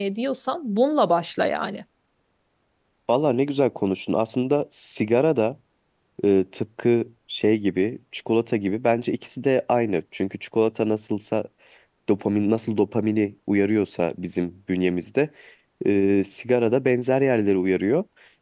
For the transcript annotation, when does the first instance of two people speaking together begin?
none

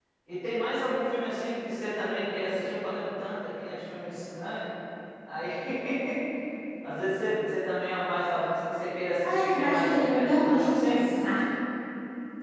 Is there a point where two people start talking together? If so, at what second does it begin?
9.2 s

